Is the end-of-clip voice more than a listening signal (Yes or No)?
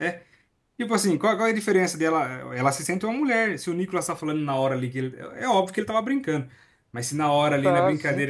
No